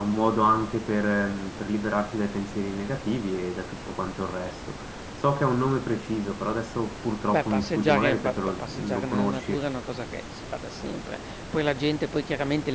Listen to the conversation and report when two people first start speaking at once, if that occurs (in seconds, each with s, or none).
7.3 s